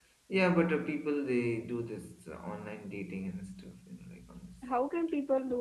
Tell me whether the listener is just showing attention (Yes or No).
No